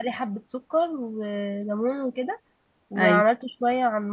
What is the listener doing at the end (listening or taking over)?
listening